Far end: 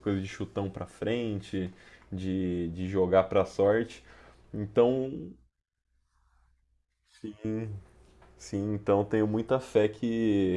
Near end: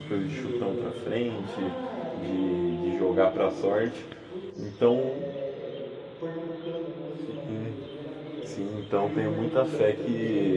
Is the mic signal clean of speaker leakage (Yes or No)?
No